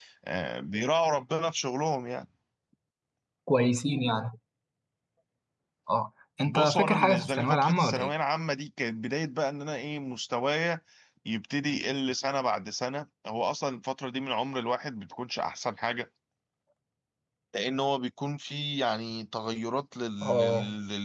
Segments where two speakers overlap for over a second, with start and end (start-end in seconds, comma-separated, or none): 6.4-8.1